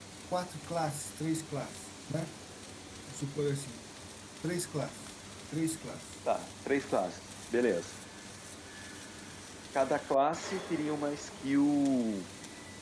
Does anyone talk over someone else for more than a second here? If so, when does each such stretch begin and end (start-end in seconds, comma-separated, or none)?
none